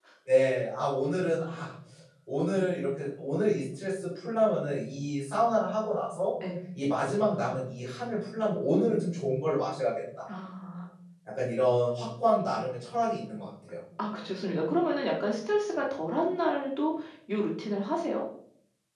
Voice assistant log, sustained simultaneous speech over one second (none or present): none